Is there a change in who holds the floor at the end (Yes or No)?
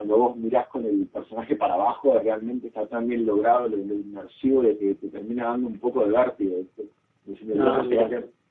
No